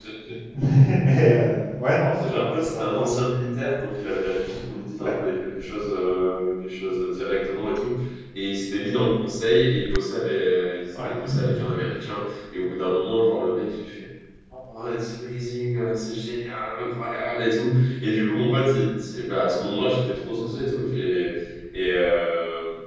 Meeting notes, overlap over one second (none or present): present